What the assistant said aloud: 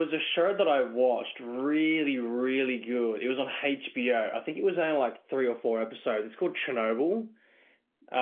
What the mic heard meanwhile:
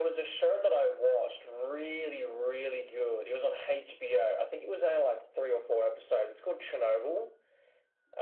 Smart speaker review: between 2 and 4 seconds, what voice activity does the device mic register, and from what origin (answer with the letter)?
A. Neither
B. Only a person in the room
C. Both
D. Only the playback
D